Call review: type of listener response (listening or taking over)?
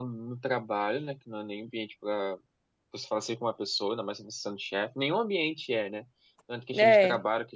listening